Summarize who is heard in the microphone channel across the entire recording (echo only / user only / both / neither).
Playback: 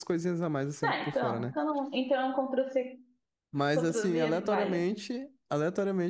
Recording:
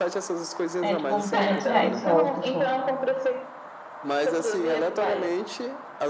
both